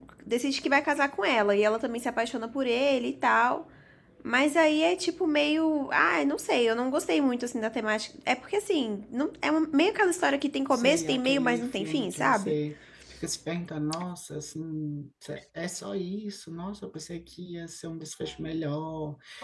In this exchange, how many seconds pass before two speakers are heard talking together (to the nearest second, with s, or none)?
11 s